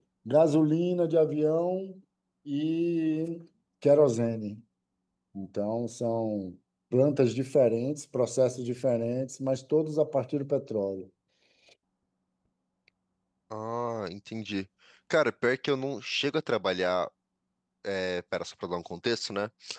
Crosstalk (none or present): none